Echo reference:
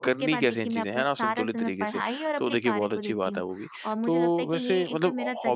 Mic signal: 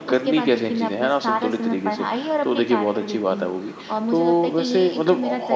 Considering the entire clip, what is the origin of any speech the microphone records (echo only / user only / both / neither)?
echo only